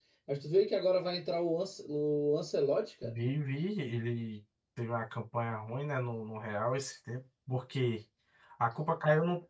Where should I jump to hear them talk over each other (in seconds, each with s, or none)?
none